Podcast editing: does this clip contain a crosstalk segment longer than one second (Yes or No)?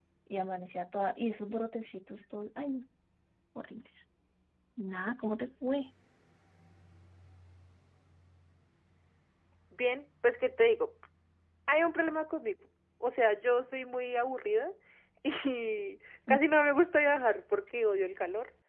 No